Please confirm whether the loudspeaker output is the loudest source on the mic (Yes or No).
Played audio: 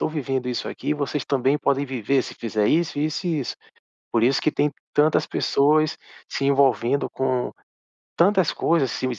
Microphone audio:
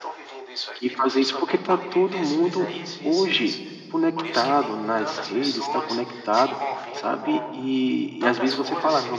No